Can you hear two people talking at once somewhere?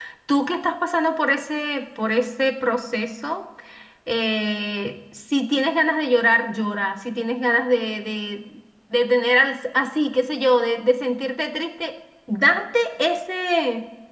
No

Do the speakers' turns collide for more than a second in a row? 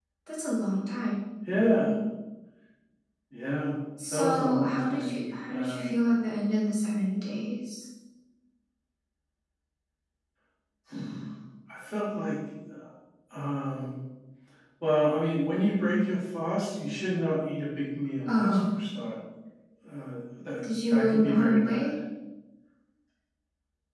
Yes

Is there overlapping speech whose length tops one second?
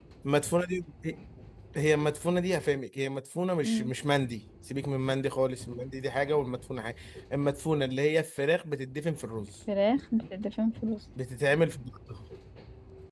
No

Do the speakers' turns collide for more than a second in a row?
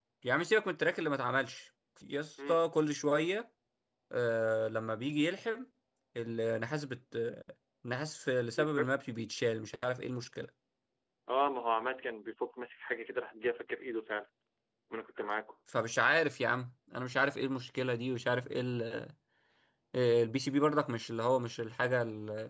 No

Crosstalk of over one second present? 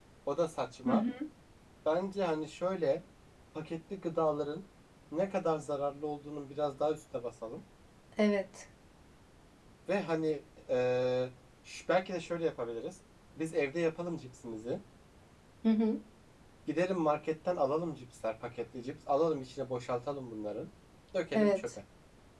No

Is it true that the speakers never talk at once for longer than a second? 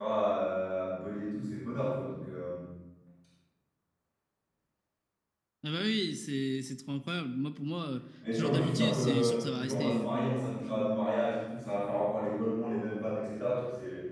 No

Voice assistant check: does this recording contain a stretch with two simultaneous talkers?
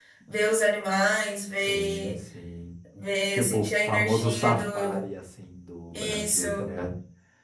Yes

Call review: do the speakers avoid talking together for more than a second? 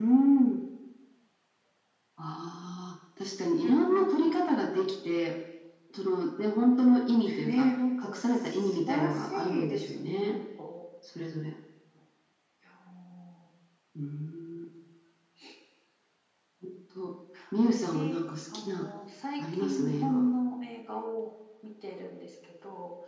No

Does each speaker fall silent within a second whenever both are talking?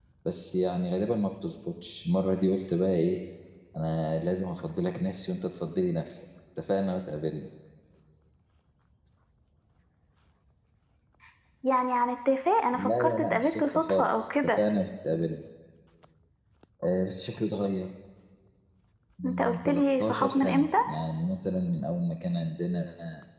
No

